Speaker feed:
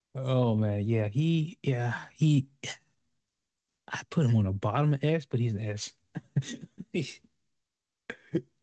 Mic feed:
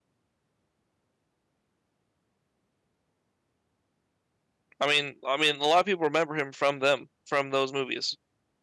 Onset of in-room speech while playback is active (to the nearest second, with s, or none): 5 s